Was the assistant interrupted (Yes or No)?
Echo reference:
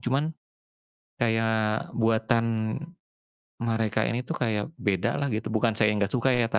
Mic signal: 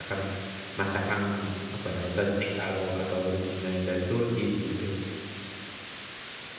Yes